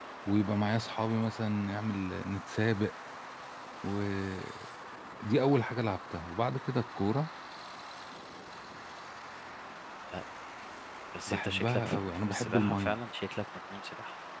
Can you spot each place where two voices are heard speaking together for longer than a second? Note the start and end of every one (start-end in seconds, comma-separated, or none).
11.3-13.0